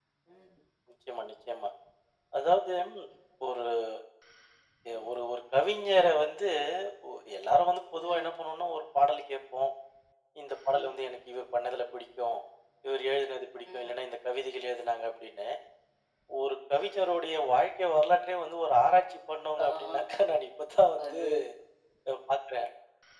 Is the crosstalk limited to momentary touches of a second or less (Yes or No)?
Yes